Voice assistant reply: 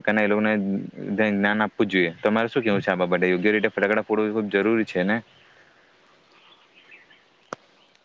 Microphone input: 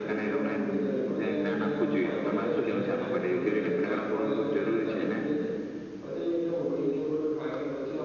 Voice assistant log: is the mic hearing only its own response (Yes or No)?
No